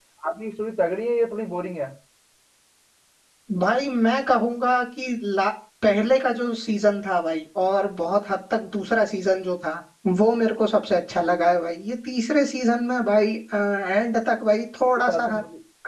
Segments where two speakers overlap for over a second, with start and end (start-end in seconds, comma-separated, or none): none